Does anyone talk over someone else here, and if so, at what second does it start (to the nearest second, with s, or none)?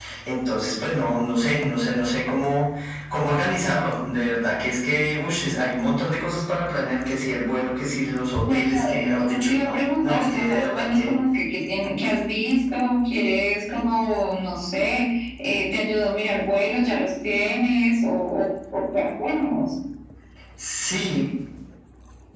8 s